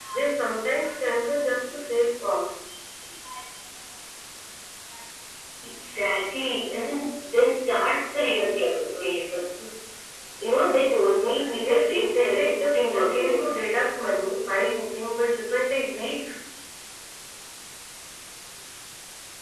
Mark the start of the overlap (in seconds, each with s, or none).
11.3 s